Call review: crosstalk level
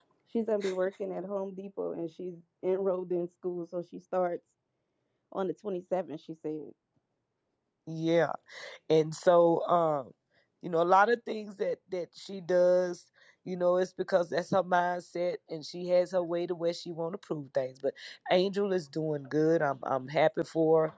none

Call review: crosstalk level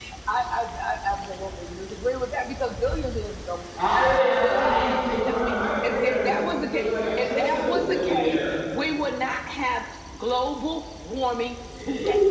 present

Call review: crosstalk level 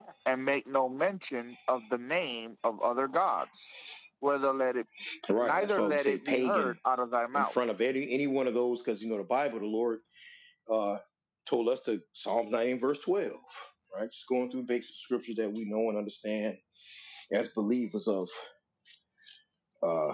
present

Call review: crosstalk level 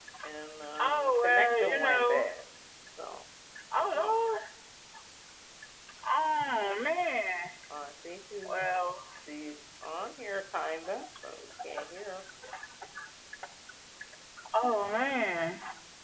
present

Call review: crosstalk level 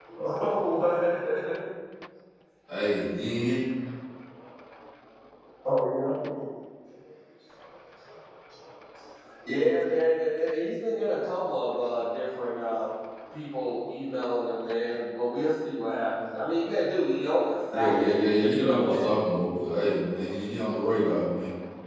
present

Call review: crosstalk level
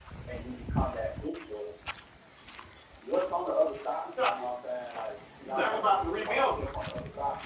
present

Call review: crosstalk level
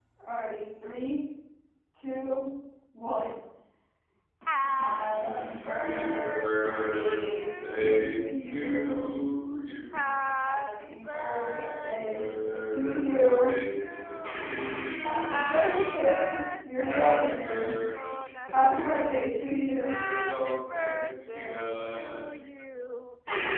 present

